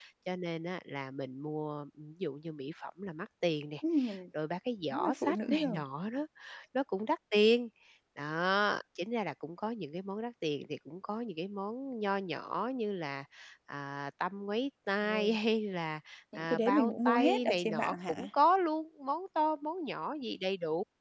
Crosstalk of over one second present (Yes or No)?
Yes